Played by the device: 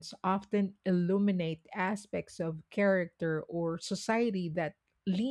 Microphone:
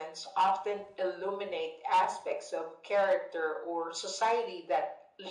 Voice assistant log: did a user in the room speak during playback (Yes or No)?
No